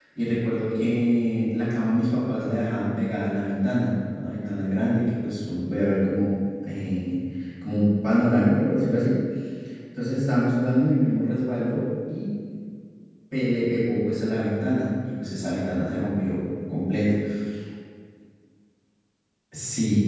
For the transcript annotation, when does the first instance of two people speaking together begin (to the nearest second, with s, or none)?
none